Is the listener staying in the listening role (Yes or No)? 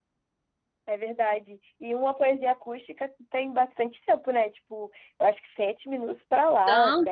No